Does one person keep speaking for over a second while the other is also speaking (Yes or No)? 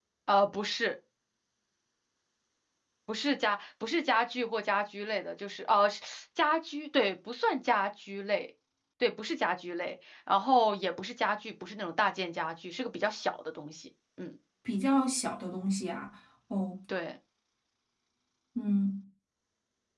No